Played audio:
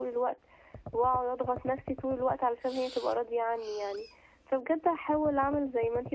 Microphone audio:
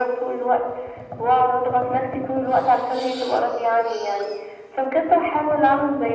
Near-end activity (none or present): none